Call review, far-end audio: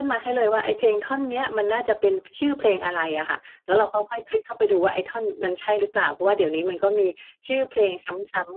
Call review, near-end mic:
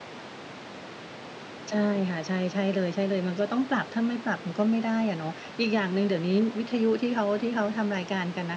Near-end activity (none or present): present